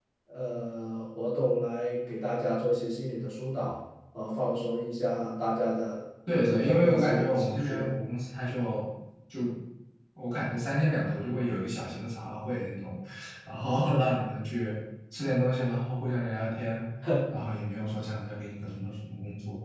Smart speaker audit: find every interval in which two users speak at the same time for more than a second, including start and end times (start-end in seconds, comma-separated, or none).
6.4-7.9